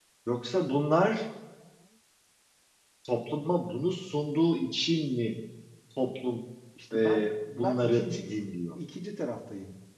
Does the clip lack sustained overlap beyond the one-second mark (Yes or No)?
No